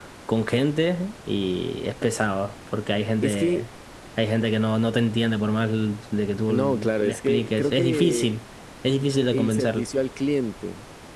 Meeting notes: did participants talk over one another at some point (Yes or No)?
Yes